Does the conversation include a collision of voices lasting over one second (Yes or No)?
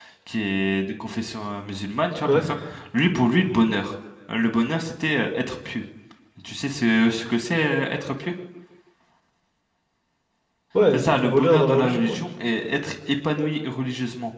Yes